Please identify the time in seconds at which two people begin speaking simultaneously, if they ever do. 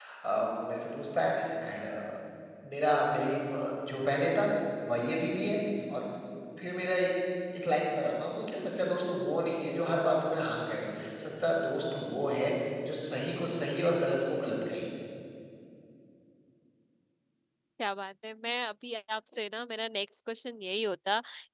none

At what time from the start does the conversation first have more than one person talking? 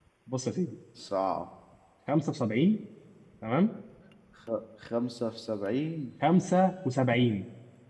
none

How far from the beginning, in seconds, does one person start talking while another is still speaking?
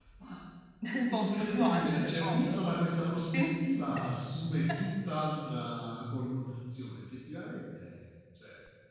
1 s

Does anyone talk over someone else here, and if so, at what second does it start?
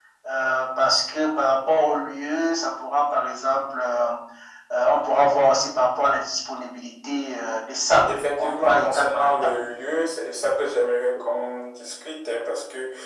8 s

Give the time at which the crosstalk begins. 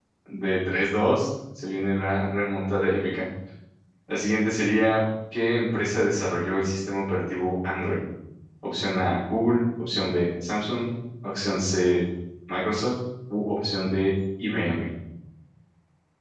none

